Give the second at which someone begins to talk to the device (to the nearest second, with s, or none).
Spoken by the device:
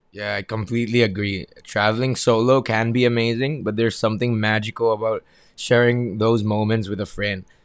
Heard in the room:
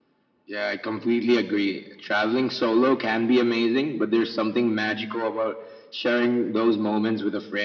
none